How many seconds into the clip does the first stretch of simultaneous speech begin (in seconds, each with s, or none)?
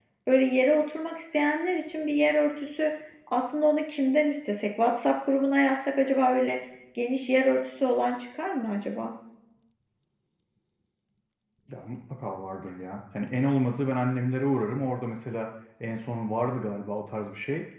none